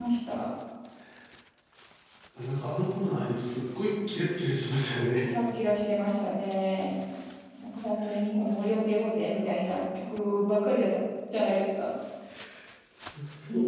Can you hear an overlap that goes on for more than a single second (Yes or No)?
No